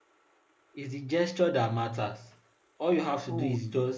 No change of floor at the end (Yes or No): No